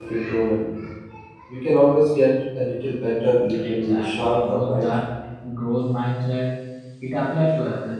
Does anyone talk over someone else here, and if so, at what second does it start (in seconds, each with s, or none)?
3.5 s